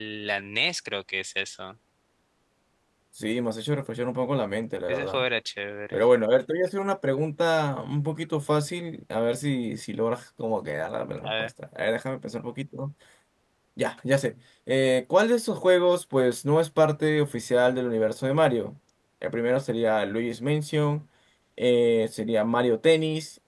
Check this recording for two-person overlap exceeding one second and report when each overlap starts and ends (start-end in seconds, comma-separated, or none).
none